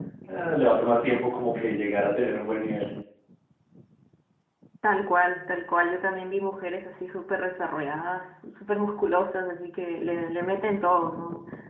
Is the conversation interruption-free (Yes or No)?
Yes